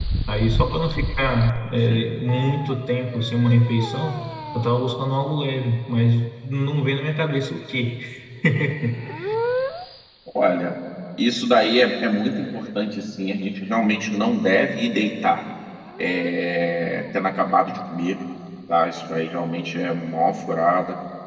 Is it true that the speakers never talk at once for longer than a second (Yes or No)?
Yes